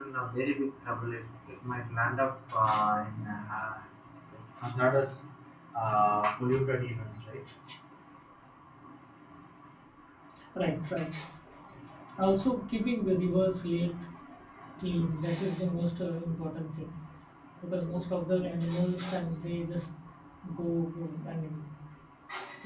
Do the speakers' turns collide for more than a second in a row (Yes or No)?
No